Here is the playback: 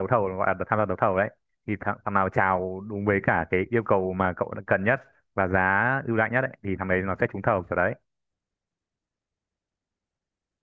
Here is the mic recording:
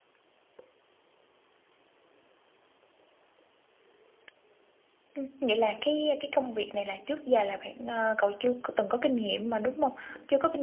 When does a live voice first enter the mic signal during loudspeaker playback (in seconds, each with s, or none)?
5.1 s